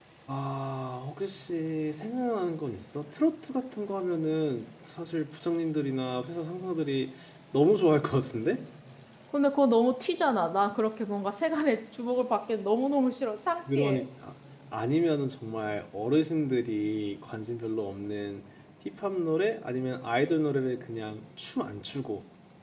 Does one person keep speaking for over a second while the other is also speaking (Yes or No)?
No